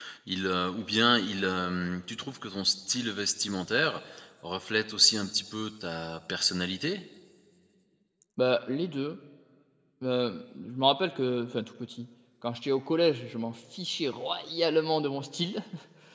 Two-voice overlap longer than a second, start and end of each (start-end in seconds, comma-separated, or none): none